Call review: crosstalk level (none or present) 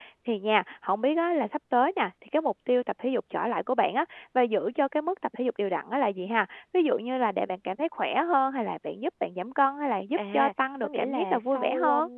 present